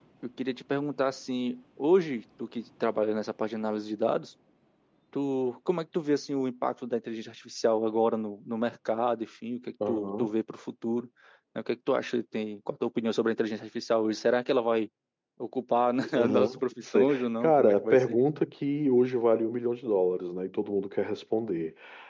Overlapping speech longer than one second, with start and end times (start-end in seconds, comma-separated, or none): 16.1-18.2